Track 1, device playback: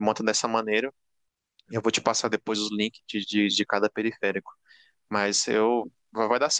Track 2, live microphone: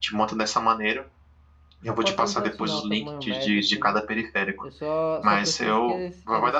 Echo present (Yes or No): Yes